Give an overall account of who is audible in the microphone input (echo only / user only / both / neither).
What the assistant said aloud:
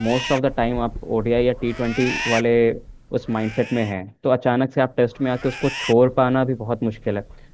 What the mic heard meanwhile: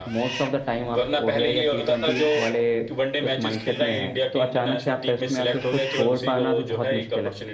both